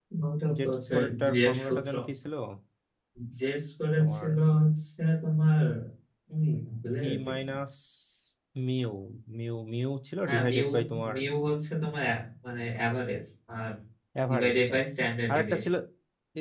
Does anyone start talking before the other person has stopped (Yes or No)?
Yes